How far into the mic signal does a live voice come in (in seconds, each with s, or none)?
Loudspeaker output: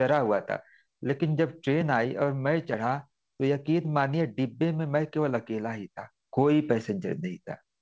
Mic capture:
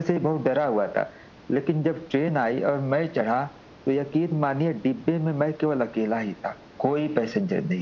none